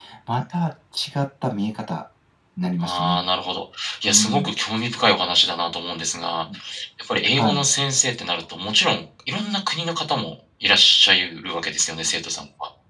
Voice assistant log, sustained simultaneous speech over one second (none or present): none